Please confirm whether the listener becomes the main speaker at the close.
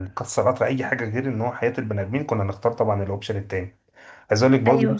No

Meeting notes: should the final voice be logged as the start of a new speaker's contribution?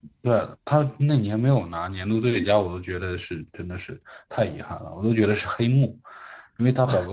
No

